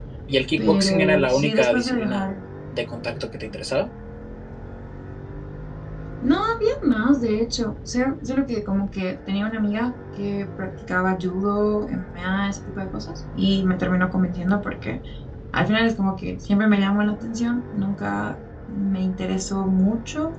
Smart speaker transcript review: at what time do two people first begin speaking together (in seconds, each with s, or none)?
0.6 s